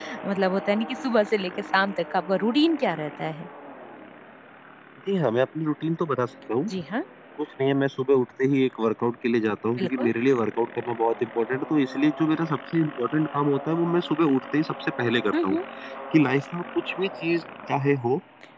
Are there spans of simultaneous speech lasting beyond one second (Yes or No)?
No